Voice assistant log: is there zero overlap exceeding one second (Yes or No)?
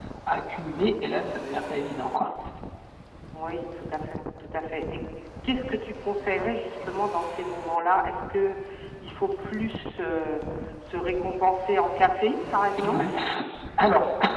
Yes